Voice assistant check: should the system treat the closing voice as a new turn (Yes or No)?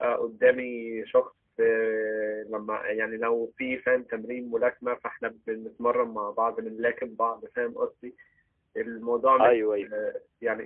No